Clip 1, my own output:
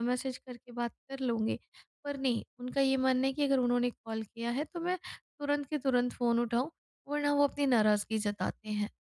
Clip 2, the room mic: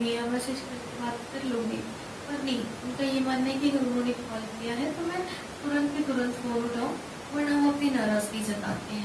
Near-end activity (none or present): none